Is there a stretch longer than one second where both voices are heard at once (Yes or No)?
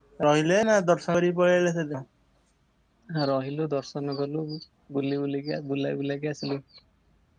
No